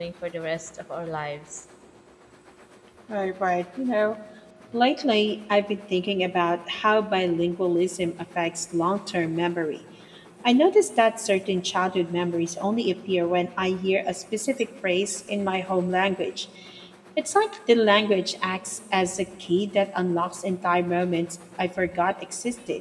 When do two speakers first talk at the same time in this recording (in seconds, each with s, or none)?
none